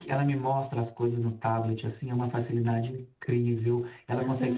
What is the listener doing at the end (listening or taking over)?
listening